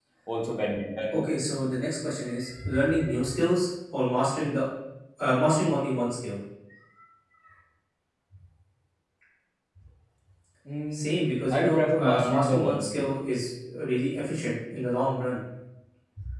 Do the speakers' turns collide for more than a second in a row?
Yes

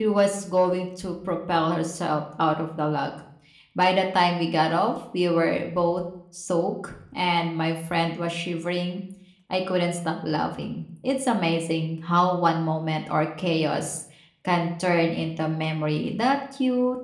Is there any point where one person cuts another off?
No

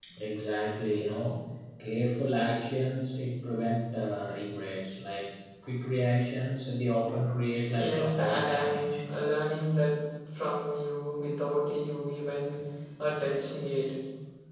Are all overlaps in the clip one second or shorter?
No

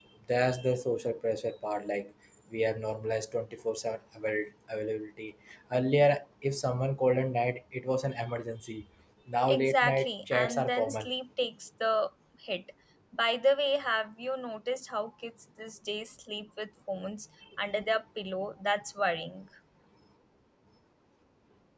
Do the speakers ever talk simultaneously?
Yes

